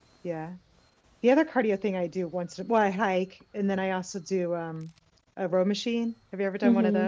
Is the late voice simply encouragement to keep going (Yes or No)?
No